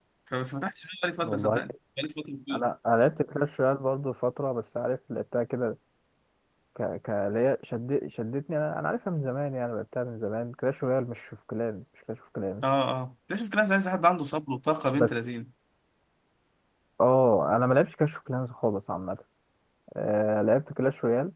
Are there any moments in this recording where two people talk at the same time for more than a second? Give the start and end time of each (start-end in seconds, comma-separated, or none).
none